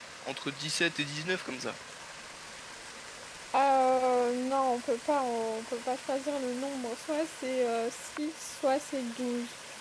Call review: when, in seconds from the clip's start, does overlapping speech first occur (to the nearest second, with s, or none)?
none